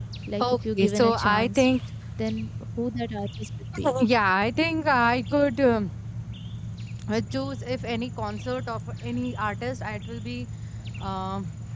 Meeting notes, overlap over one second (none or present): present